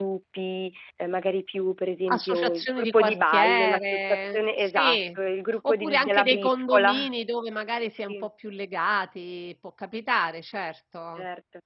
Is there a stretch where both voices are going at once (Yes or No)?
Yes